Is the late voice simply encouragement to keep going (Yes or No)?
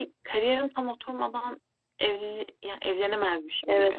No